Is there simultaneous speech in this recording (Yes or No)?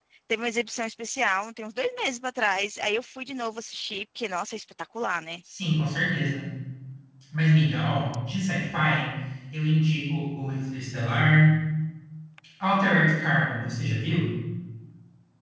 No